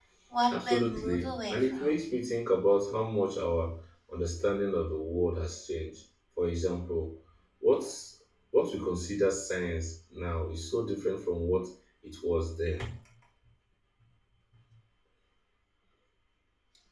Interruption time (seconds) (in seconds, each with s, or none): 0.7 s